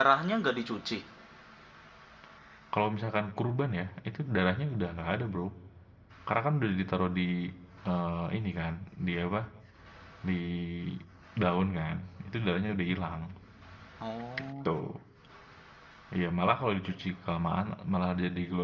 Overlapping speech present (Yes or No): No